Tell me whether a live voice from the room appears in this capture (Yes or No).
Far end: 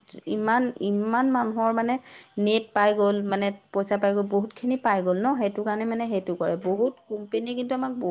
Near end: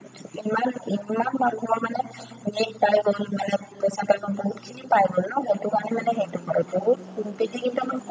No